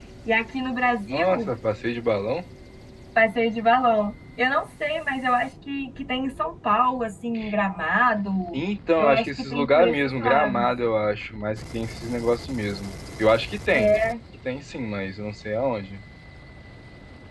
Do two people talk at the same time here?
Yes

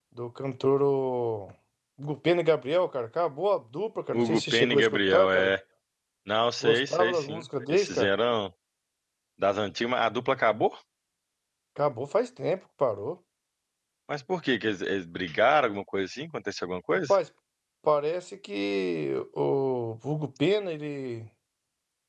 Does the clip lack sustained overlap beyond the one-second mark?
No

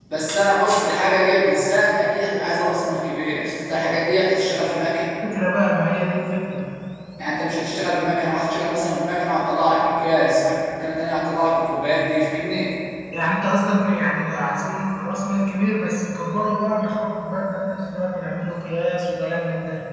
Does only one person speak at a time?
Yes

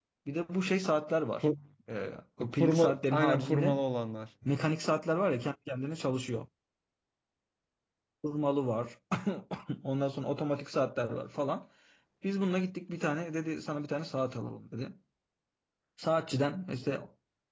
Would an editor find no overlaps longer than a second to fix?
No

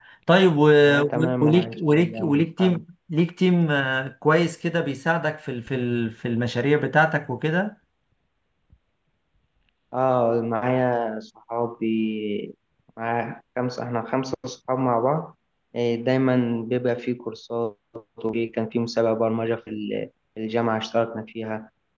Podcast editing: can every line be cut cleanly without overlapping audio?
No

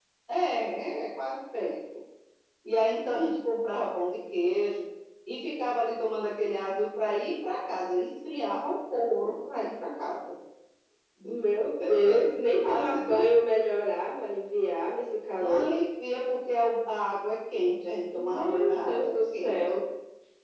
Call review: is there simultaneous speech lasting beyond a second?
Yes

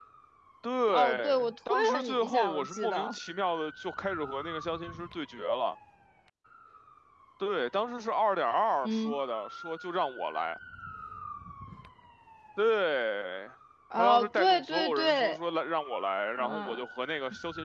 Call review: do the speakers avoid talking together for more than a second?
No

